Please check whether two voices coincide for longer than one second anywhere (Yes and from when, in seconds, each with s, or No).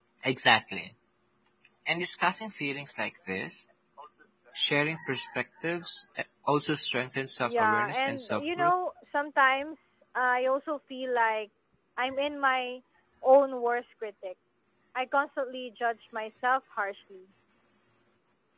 Yes, from 7.4 s